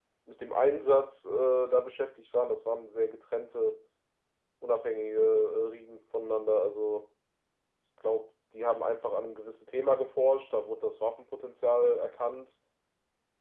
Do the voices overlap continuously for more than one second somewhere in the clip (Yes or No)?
No